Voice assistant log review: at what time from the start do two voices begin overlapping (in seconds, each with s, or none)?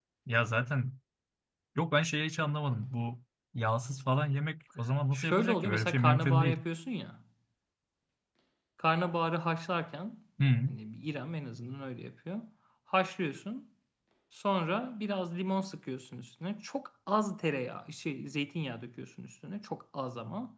5.1 s